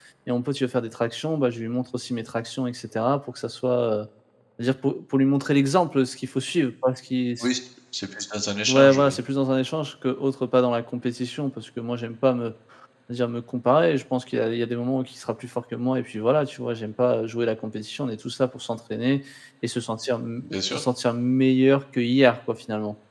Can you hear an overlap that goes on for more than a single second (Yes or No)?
No